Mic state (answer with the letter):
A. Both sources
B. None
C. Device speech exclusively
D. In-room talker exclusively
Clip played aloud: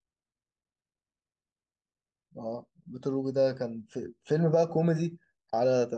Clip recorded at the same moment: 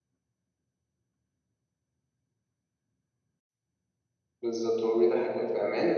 D